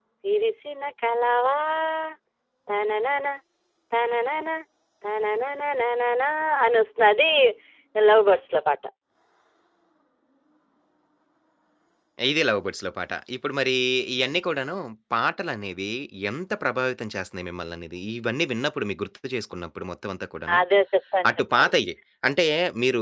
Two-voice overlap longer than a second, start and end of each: none

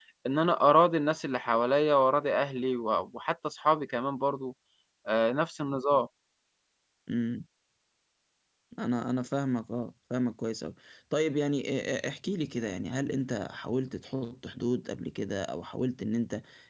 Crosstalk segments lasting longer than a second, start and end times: none

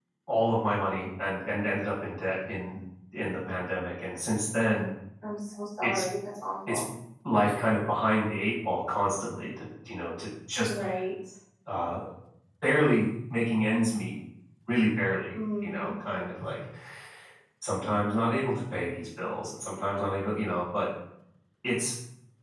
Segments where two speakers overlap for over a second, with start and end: none

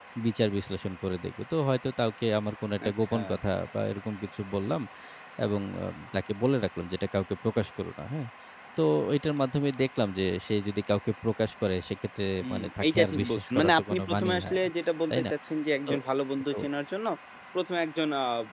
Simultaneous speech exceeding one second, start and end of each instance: 12.4-14.7

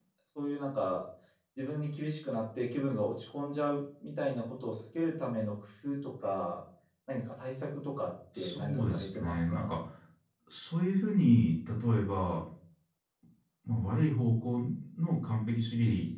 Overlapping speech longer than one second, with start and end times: 8.4-9.7

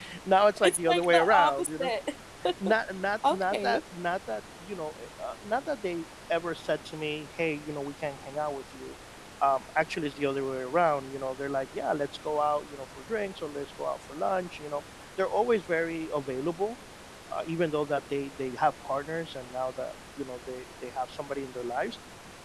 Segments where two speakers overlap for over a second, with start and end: 0.6-1.9

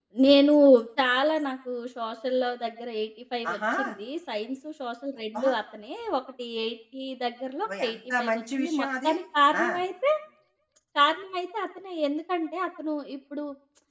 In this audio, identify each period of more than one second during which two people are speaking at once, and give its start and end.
7.7-9.1

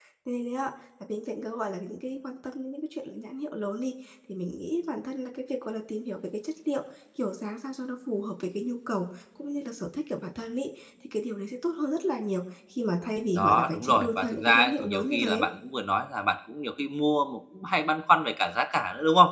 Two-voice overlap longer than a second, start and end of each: 13.3-15.5

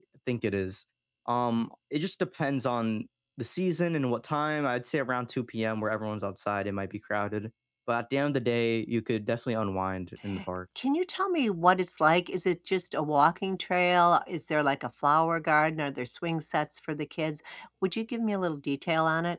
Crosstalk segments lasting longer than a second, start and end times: none

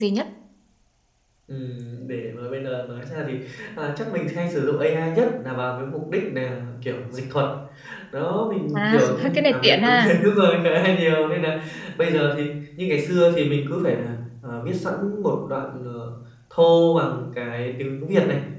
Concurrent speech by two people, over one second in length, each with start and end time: 8.7-10.1

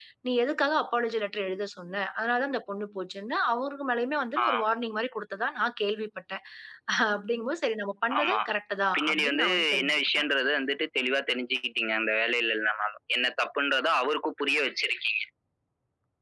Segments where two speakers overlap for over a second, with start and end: 9.0-10.2

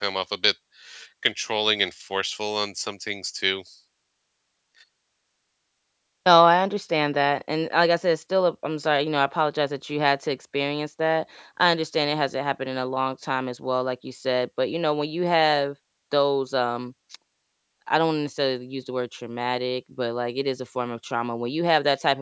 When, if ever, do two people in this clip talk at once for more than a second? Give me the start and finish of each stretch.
none

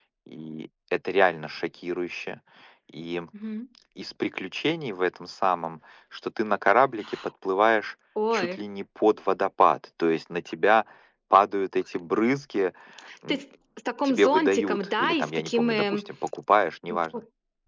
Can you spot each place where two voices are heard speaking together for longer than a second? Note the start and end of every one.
14.0-16.1

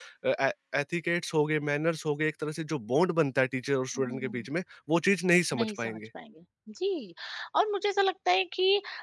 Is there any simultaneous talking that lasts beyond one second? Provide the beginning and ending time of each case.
none

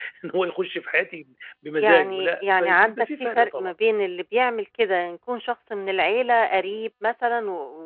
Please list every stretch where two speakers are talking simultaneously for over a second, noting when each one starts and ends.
1.8-3.7

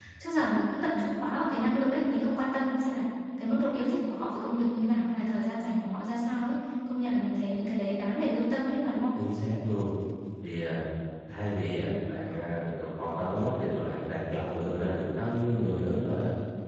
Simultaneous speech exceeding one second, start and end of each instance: none

